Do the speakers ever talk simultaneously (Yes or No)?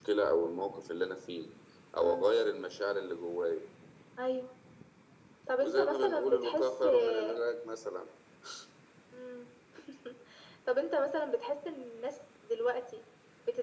Yes